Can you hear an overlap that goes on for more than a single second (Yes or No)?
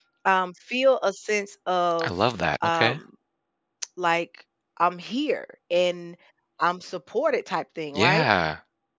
No